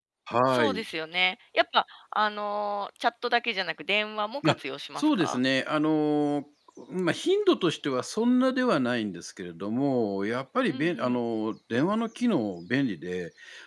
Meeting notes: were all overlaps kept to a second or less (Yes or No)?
Yes